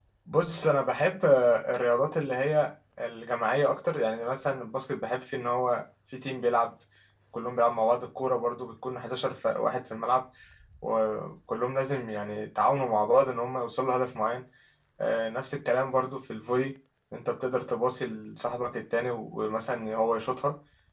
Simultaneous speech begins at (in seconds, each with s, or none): none